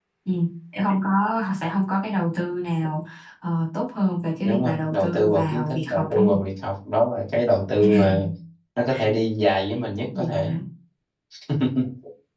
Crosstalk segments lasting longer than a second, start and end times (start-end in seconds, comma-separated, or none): 4.4-6.4